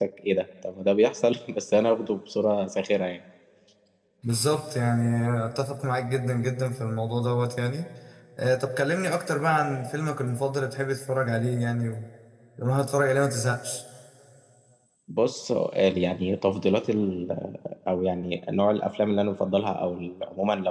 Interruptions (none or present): none